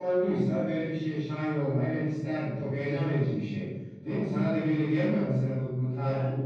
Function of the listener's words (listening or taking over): taking over